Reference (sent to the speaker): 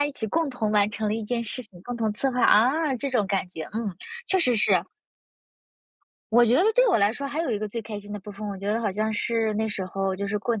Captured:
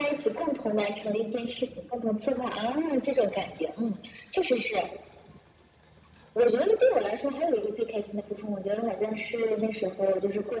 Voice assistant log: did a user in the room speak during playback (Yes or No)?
No